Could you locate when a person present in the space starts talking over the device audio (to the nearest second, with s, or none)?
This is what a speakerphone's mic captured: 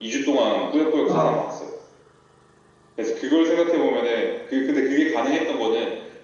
1 s